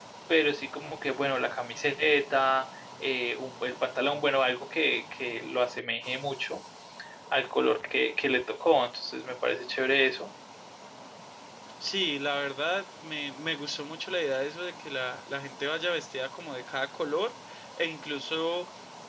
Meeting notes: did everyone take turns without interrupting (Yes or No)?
Yes